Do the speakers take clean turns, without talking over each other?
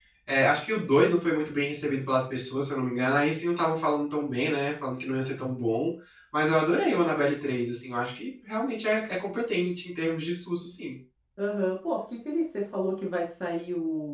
Yes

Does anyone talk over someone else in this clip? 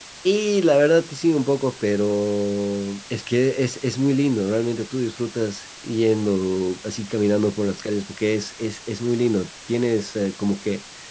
No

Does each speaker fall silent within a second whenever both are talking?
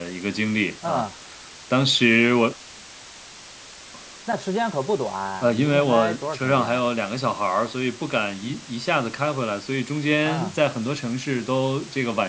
No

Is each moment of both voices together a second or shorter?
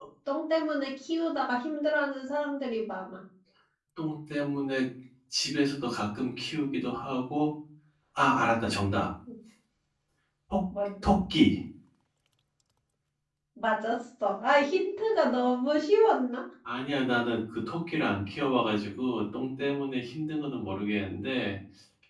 Yes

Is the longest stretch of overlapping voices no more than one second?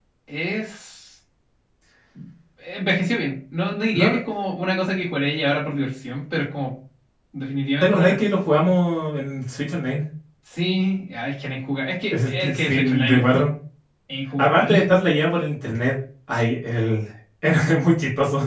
No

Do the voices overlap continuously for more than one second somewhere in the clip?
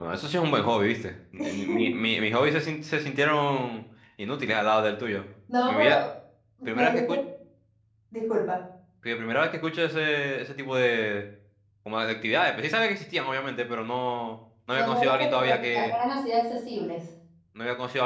Yes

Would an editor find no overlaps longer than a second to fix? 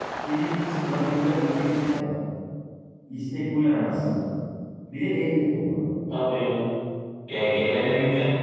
Yes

